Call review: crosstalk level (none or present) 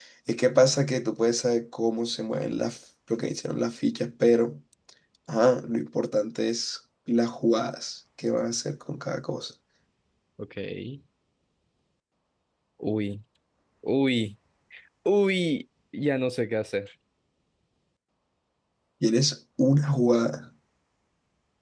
none